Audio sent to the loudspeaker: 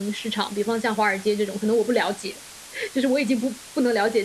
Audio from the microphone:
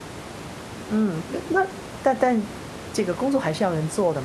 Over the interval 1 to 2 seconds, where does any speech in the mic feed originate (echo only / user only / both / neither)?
user only